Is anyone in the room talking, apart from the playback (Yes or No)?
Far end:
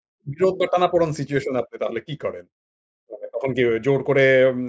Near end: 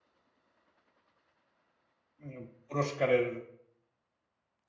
Yes